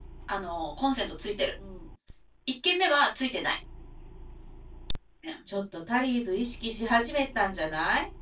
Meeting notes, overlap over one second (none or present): none